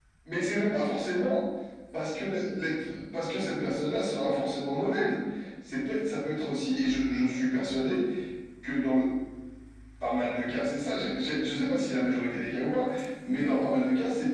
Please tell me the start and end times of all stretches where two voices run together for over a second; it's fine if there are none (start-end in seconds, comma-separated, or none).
none